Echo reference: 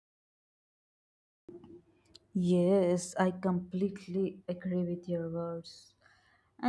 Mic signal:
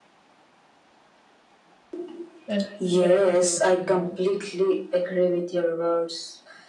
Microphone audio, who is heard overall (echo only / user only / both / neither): both